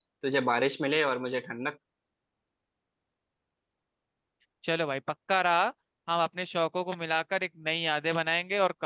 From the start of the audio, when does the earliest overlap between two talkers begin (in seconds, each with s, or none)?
none